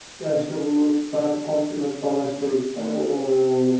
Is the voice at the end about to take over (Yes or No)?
No